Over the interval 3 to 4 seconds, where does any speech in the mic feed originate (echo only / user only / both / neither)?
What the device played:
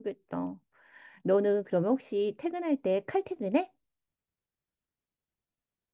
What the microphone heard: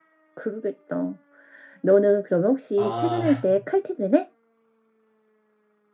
both